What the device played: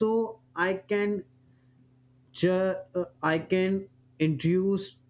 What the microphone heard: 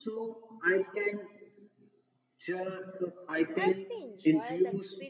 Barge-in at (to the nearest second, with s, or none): 4 s